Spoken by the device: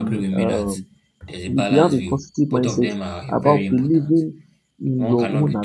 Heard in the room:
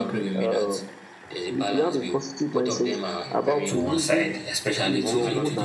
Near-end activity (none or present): present